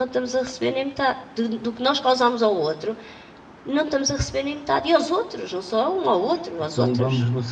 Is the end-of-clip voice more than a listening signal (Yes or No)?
Yes